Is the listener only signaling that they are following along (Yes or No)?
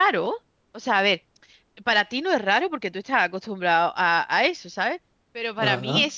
Yes